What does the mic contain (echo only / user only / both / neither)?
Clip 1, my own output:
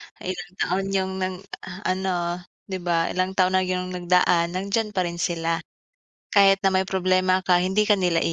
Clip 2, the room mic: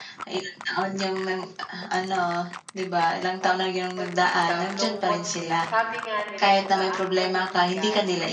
both